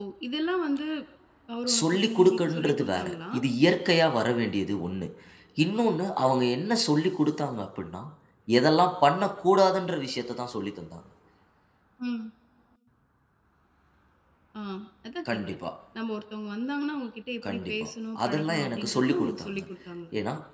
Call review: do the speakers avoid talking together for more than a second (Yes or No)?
No